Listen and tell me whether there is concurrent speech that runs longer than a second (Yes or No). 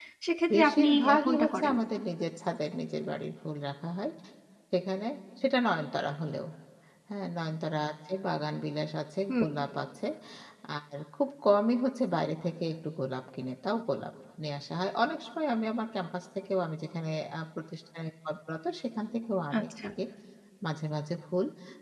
Yes